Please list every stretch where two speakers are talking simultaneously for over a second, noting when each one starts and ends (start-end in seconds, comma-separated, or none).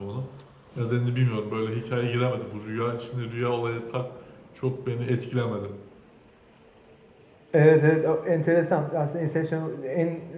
none